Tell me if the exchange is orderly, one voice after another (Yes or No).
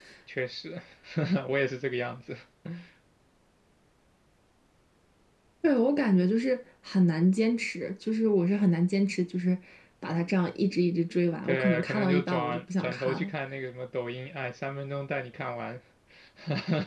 No